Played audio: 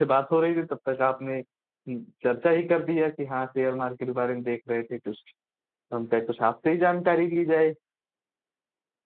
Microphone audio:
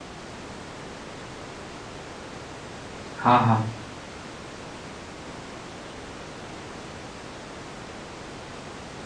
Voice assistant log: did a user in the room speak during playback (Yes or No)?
Yes